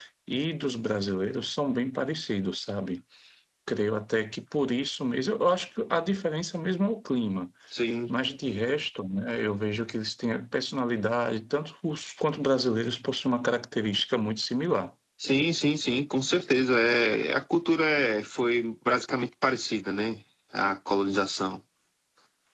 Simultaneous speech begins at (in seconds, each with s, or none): none